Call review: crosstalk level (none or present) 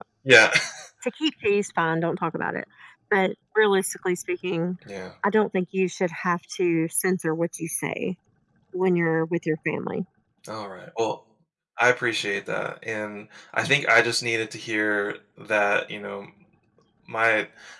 none